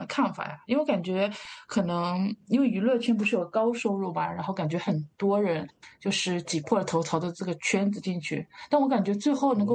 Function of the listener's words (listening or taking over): listening